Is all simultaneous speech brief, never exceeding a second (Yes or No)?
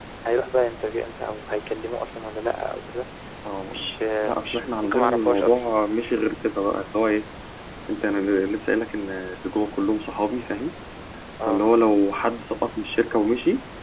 No